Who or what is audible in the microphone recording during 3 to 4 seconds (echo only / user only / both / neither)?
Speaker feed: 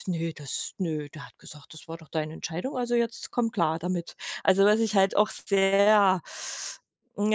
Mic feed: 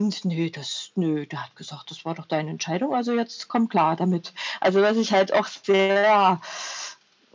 echo only